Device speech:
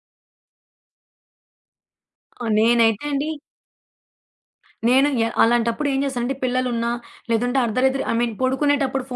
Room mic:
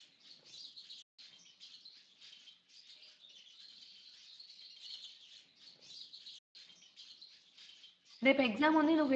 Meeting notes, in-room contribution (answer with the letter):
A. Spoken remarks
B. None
A